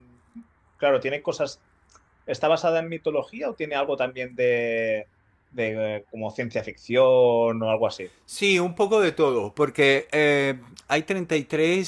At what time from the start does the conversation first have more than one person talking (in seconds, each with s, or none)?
none